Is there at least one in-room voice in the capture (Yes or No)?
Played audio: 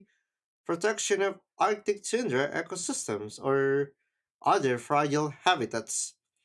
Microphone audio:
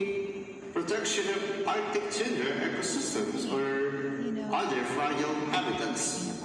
Yes